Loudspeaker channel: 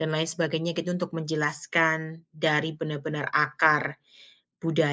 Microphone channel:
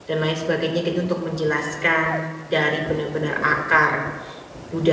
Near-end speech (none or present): none